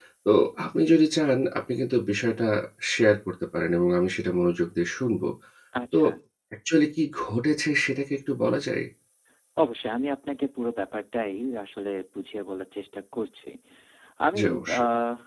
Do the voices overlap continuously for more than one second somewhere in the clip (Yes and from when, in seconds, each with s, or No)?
No